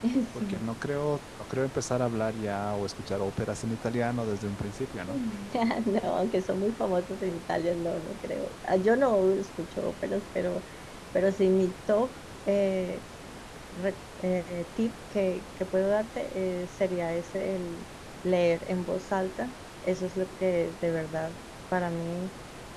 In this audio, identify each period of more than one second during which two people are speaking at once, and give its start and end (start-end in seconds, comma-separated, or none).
none